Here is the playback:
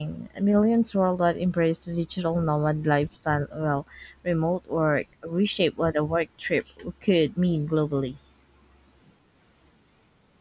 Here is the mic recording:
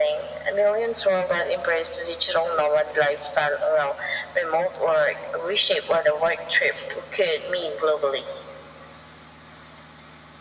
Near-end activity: none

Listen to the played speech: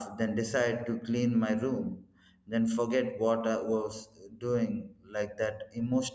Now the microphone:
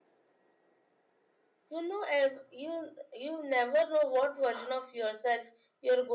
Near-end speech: present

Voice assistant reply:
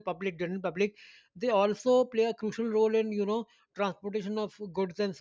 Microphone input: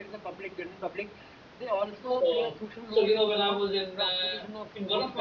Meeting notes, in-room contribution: present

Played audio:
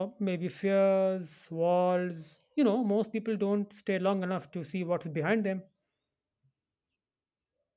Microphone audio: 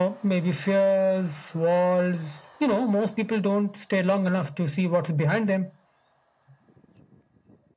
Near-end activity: none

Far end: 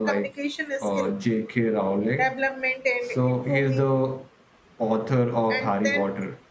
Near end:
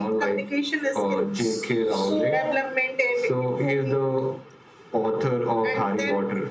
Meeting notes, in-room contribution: present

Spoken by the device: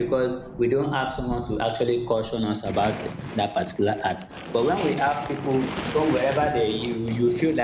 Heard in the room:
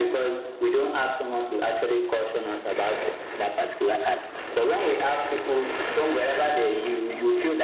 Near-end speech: none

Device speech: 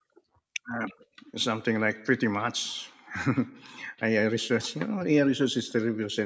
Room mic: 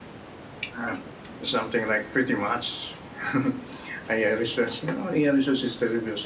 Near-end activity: none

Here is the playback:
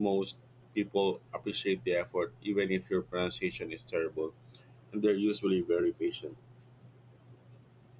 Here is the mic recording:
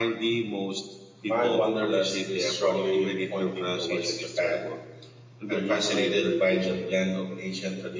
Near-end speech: present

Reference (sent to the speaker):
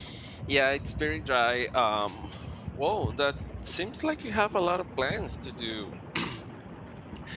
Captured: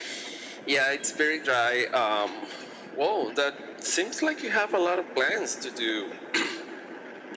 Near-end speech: none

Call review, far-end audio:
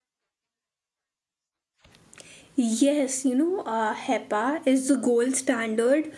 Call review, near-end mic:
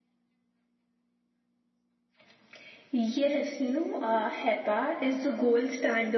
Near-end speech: none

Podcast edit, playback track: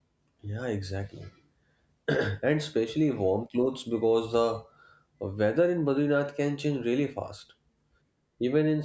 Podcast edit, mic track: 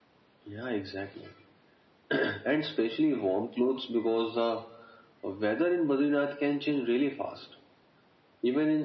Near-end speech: none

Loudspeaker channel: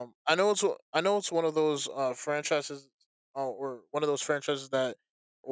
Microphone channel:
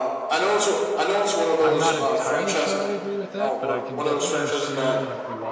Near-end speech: present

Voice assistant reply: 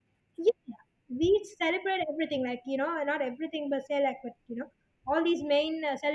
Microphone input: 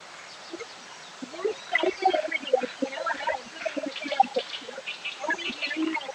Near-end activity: none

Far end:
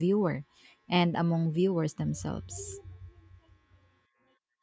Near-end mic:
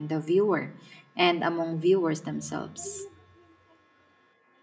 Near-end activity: none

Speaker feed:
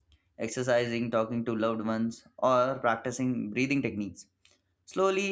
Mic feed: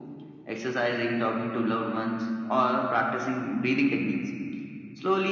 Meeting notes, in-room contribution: none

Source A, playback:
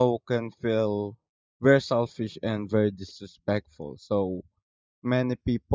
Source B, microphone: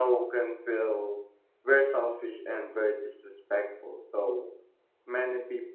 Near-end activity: none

